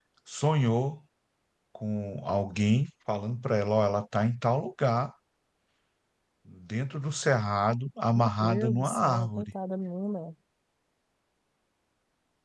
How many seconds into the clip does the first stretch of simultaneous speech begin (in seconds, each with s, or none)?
8.1 s